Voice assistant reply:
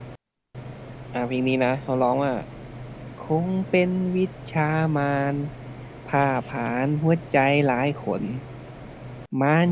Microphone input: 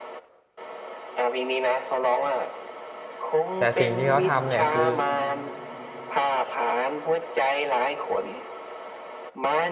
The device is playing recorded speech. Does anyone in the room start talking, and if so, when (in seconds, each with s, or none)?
3.6 s